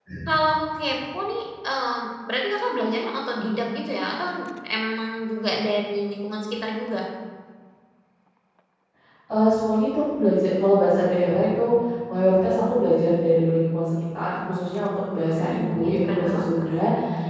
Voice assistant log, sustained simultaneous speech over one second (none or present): present